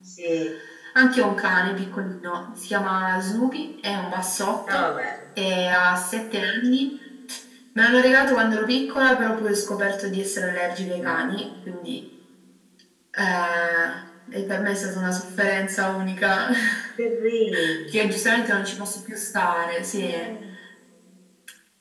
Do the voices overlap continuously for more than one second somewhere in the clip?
No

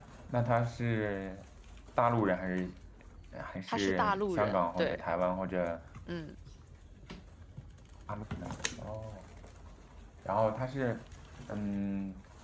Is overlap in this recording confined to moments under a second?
No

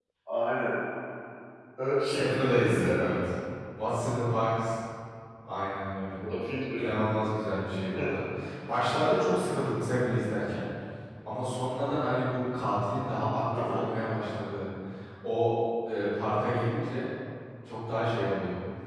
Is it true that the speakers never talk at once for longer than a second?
No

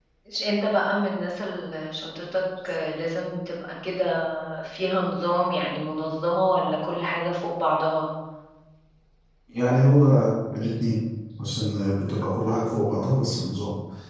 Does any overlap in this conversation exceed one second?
No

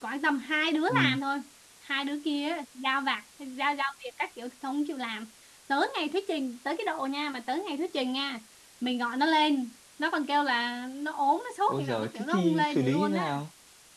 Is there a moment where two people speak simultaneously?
Yes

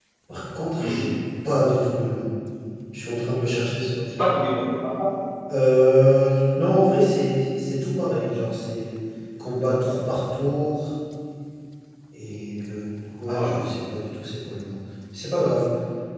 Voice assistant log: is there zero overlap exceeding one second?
Yes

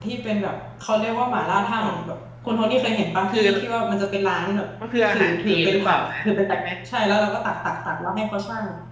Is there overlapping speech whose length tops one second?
Yes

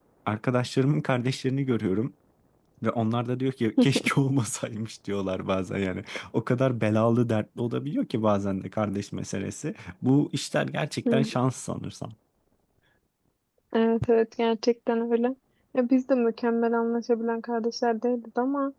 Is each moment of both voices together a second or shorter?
Yes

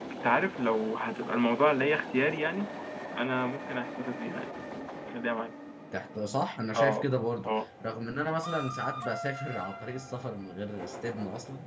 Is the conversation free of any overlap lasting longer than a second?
Yes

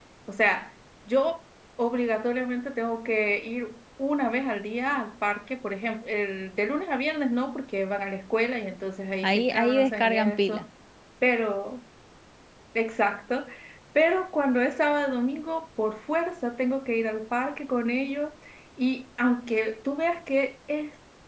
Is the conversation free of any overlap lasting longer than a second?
No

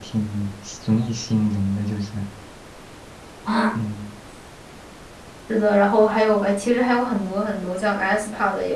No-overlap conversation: Yes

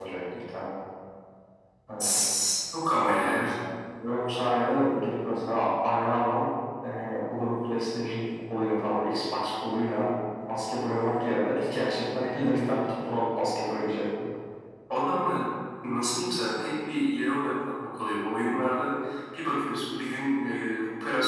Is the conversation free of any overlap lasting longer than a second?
Yes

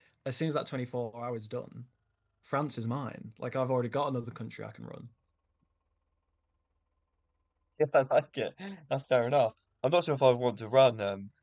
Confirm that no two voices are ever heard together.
Yes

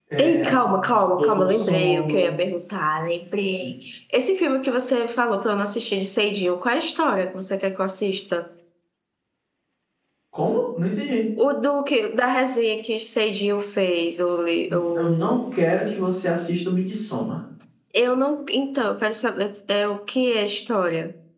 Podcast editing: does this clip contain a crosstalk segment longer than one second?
Yes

